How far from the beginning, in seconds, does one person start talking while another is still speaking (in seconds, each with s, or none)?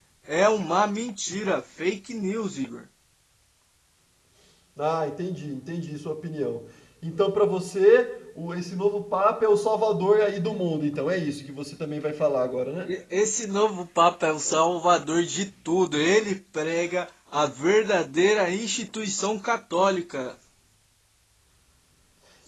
none